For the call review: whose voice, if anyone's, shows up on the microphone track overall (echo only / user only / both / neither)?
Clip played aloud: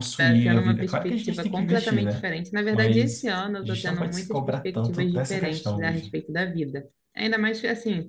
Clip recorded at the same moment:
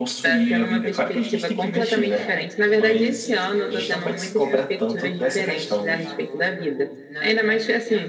both